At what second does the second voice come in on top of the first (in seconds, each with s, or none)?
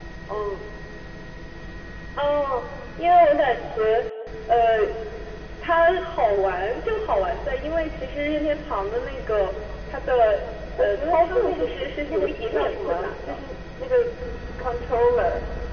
10.8 s